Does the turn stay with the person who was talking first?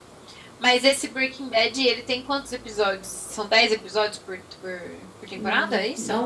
No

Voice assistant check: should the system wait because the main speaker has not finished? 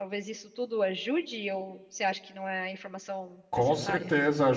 No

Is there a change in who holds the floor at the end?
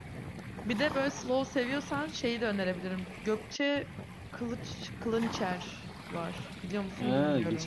Yes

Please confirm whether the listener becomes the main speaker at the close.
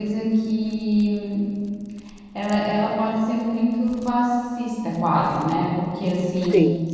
No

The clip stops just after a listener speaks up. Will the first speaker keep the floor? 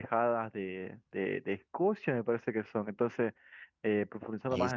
Yes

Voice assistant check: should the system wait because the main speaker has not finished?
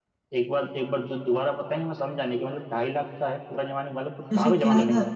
No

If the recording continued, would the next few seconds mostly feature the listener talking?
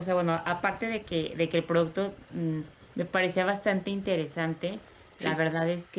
No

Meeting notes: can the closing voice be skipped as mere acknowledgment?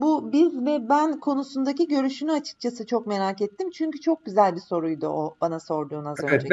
No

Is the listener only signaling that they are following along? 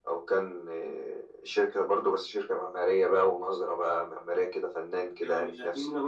No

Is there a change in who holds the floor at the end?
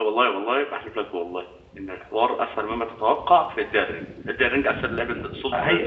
Yes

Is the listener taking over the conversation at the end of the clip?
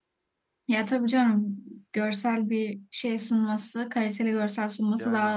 No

